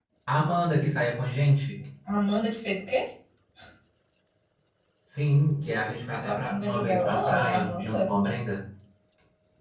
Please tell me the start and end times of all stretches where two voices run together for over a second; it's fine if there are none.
6.2-8.1

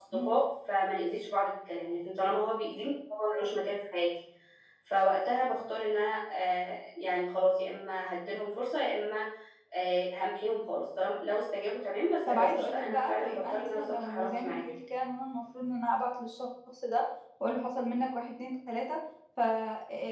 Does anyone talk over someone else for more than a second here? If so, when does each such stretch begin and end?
12.3-14.7

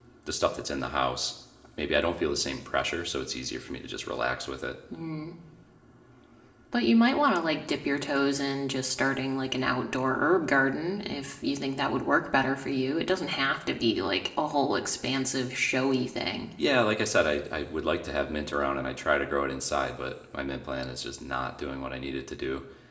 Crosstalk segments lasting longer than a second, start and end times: none

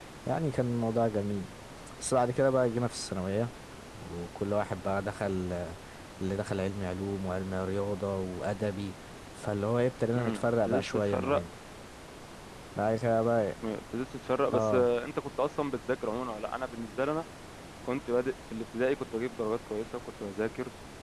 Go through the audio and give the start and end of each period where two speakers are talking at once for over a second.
10.2-11.4

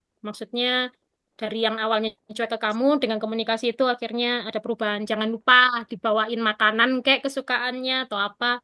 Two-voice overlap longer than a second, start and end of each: none

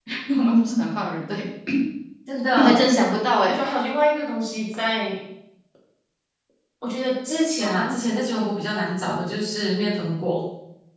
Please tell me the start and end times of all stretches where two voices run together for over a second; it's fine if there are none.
none

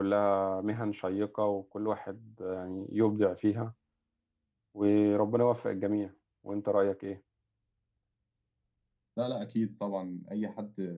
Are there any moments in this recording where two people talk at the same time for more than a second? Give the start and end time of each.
none

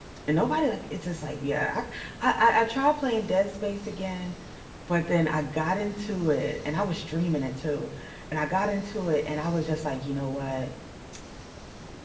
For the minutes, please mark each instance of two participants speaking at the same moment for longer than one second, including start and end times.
none

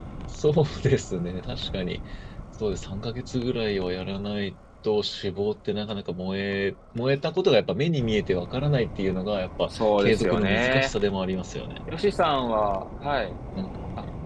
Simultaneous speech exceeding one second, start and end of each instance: 9.7-10.9

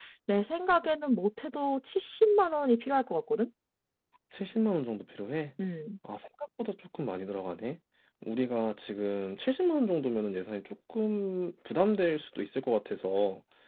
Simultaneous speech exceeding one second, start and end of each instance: none

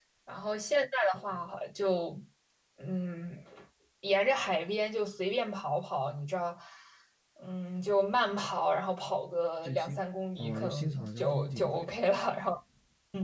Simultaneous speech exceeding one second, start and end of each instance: 10.3-12.0

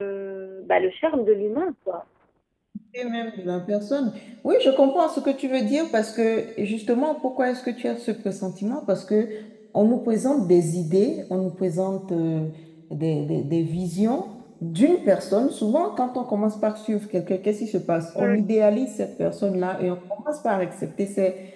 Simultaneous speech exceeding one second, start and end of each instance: none

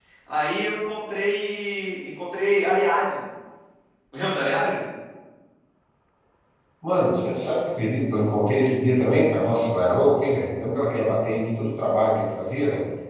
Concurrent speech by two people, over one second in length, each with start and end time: none

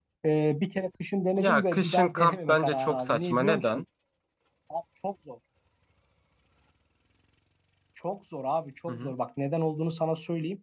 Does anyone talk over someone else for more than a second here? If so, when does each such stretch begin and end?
1.4-3.8

